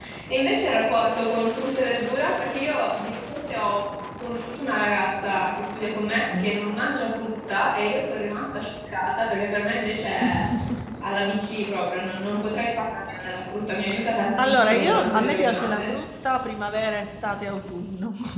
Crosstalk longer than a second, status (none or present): present